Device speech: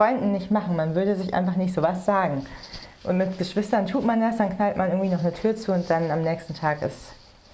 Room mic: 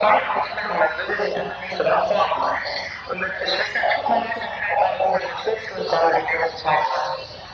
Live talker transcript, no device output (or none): none